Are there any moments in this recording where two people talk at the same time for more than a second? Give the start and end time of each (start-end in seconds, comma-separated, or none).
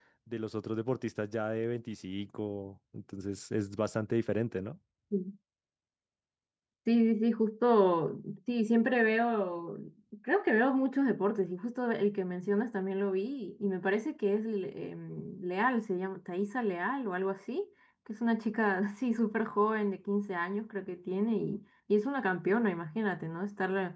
none